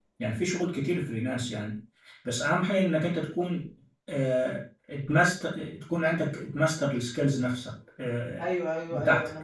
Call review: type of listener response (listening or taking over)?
taking over